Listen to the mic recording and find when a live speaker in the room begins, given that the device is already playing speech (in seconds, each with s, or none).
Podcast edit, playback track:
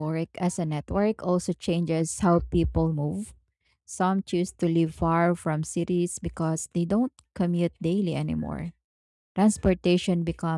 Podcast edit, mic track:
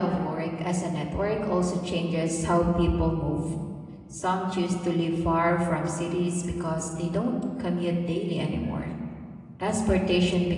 none